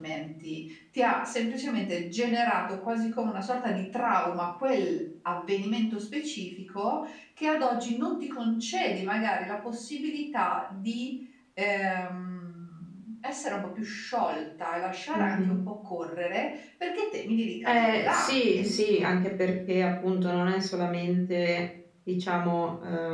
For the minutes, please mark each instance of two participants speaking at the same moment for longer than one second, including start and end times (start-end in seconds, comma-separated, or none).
17.6-19.1